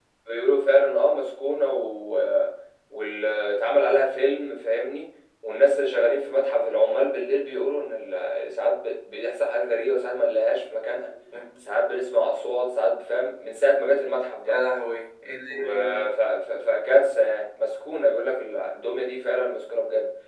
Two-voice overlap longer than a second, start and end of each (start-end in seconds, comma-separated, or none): none